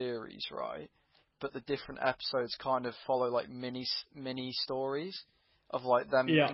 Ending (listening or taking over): listening